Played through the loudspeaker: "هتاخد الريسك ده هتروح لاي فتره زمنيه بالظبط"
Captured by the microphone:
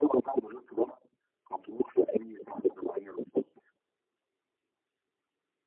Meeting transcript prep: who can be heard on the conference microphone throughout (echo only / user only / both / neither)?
echo only